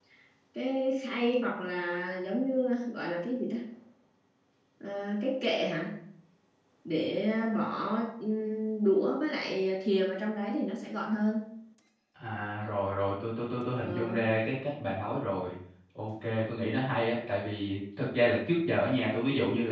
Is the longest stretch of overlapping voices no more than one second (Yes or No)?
Yes